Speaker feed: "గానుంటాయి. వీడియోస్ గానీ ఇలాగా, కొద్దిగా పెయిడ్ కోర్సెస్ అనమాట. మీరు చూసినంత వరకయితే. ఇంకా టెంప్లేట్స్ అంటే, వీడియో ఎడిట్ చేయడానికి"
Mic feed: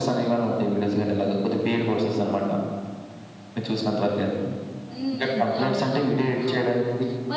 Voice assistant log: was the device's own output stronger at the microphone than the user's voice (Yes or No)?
Yes